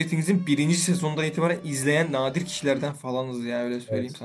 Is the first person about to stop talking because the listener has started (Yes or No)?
Yes